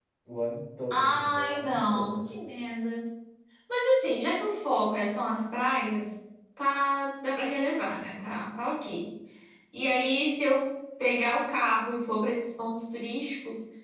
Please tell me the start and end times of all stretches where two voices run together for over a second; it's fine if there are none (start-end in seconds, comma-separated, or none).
0.9-2.3